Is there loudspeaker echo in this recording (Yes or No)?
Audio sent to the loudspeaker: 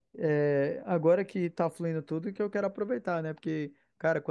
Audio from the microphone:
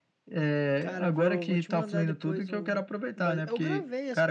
Yes